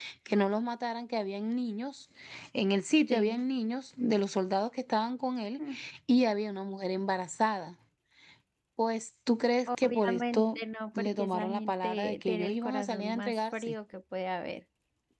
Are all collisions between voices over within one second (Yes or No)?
No